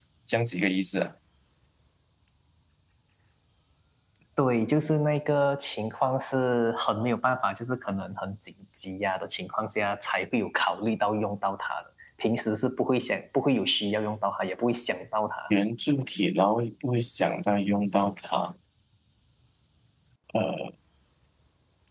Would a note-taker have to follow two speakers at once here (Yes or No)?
No